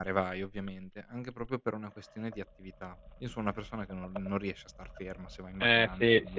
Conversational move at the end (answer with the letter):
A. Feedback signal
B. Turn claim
B